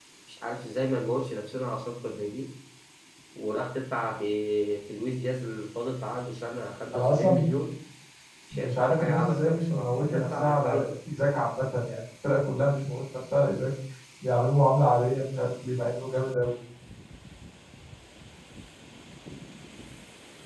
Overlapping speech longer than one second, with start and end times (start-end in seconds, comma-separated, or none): 8.5-10.9